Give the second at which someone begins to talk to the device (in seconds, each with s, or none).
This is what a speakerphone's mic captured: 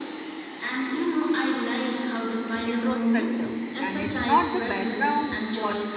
2.6 s